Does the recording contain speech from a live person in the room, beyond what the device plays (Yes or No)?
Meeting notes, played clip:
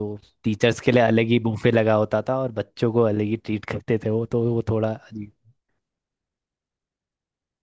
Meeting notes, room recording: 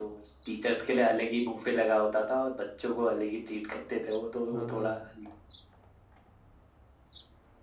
Yes